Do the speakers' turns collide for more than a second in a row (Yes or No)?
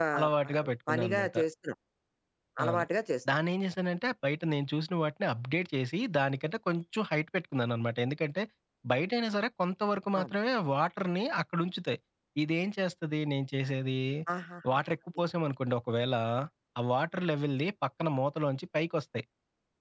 No